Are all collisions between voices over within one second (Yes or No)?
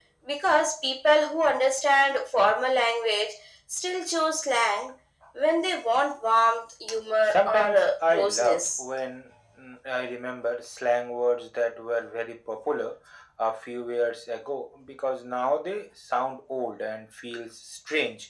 No